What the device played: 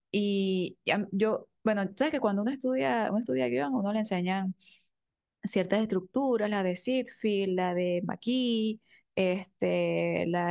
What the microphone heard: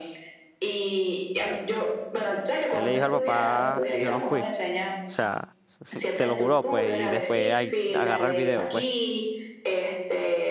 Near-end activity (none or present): present